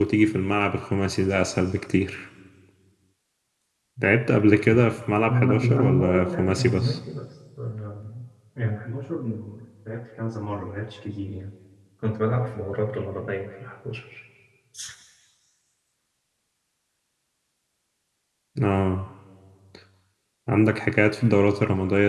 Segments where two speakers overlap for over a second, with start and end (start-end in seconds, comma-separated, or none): 5.3-7.0